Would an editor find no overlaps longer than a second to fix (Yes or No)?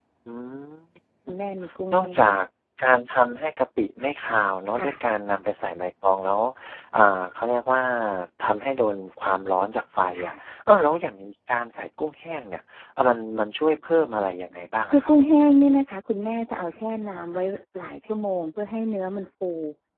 Yes